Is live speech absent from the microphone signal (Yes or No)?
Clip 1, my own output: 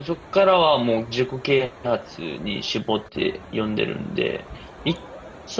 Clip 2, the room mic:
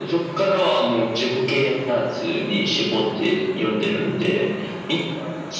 Yes